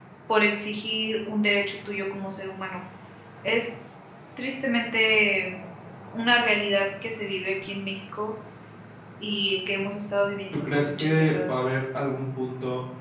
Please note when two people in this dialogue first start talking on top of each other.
10.5 s

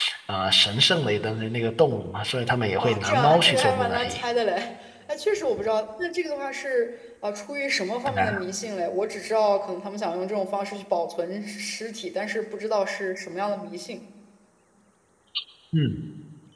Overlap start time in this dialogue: 2.8 s

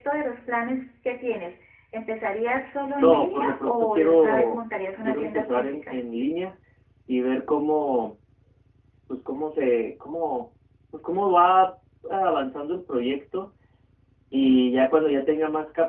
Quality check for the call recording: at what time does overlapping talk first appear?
3.0 s

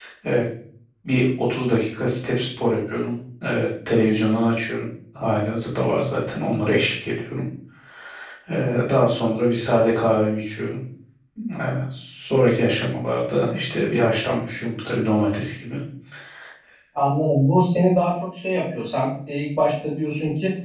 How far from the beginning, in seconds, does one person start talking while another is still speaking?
none

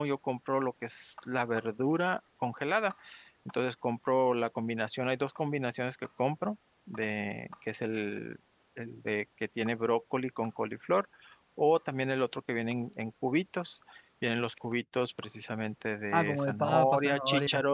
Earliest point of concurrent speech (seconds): 16.1 s

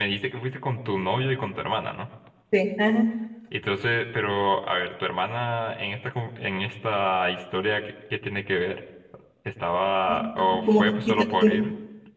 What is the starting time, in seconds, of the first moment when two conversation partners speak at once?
10.1 s

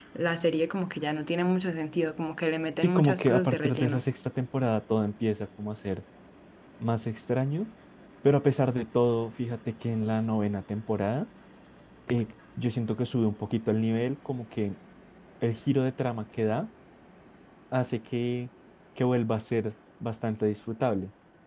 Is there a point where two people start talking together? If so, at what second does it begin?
2.8 s

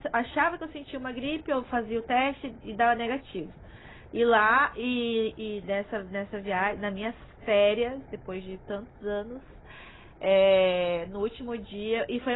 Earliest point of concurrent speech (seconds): none

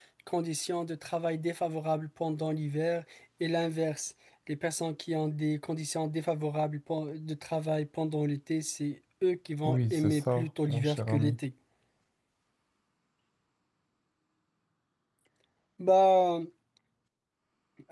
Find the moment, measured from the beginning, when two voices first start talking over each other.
9.6 s

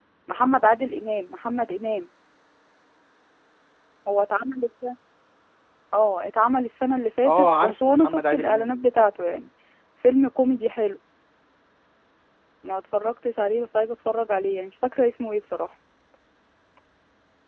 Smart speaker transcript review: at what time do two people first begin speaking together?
7.2 s

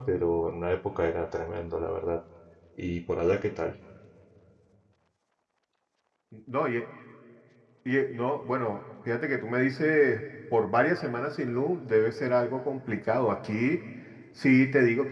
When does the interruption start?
none

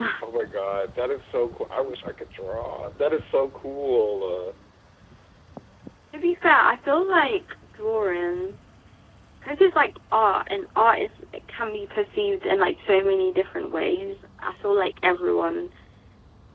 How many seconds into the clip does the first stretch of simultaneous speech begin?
none

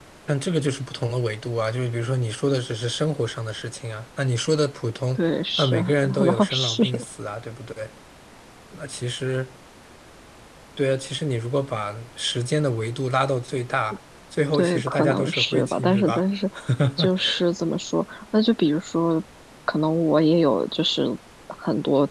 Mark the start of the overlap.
5.6 s

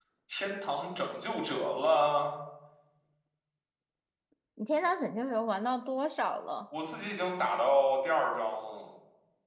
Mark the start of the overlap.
none

